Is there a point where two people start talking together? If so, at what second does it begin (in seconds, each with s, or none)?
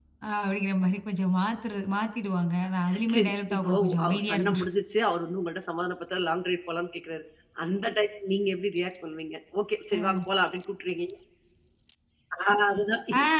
3.1 s